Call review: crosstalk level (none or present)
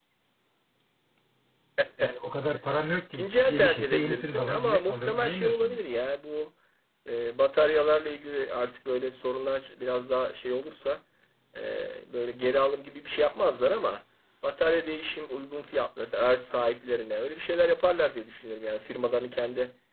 present